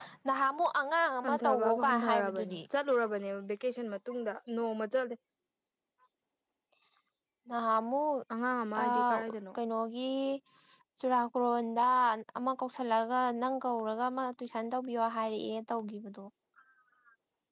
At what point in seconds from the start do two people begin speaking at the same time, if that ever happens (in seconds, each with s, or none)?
1.2 s